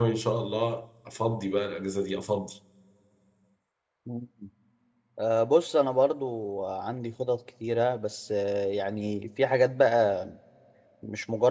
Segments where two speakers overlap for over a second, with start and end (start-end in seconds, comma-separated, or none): none